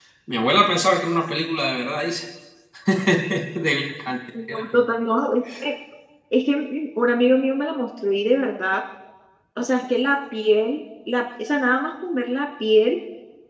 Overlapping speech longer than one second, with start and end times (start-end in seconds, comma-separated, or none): none